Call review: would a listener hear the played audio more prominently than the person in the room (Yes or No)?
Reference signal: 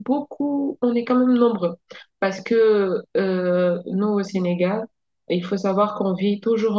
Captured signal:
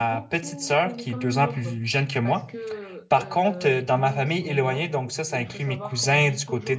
No